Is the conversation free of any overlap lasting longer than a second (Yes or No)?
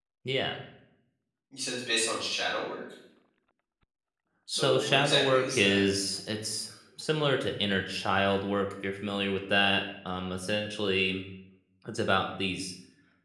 No